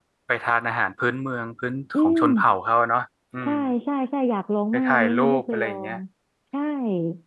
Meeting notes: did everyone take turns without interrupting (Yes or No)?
No